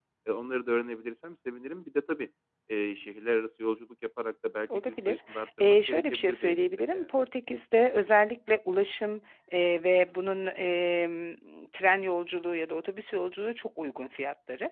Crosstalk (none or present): present